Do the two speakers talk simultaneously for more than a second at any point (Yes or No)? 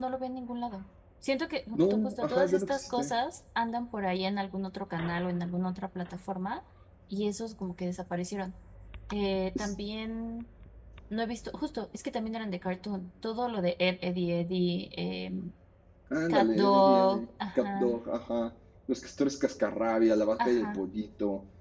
Yes